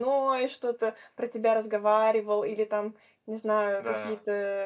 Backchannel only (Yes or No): Yes